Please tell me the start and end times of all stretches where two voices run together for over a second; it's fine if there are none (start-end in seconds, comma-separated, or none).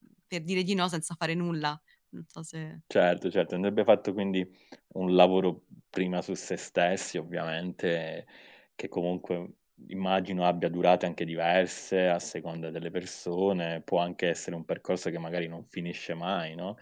none